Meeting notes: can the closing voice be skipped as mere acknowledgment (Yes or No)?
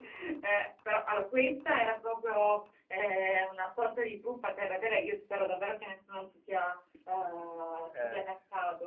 Yes